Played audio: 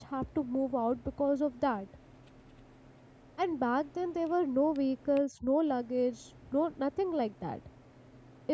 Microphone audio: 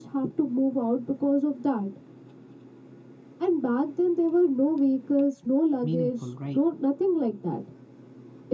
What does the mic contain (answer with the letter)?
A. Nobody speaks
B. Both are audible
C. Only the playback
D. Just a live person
B